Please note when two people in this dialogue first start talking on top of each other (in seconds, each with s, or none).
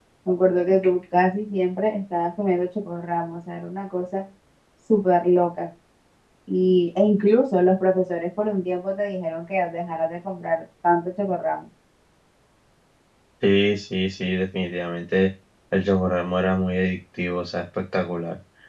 none